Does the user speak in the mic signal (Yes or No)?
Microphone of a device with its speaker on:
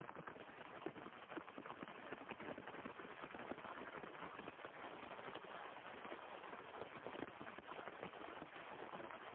No